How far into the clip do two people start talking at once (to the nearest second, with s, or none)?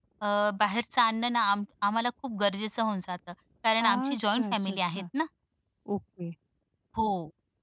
4 s